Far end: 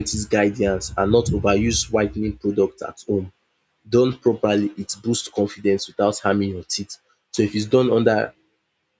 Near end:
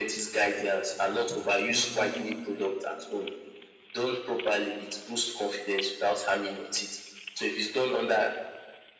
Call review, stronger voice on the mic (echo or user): echo